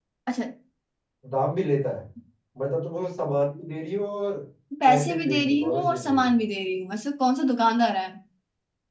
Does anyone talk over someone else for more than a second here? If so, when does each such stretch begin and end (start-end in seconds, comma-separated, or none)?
4.8-6.3